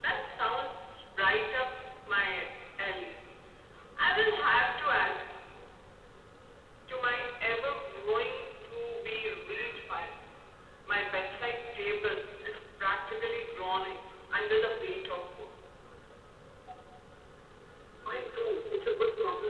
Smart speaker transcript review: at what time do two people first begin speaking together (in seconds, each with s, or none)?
none